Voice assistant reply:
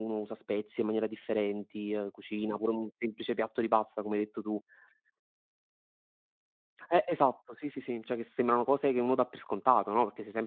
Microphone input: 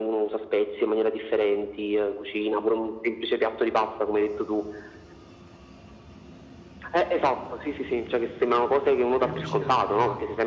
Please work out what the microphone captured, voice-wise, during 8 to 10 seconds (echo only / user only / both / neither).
both